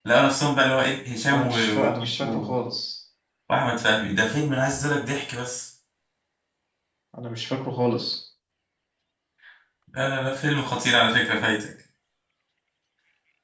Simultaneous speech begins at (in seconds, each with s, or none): 1.3 s